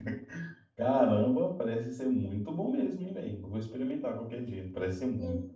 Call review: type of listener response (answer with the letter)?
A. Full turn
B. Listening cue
A